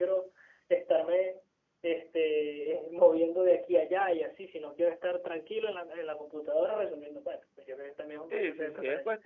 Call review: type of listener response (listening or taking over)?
taking over